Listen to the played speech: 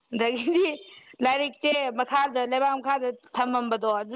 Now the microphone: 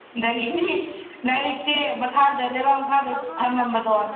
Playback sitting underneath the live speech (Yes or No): No